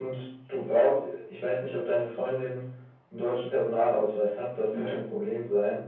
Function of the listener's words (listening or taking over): listening